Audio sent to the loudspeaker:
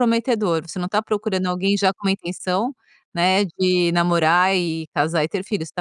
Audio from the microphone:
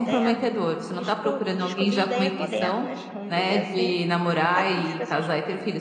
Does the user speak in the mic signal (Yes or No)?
Yes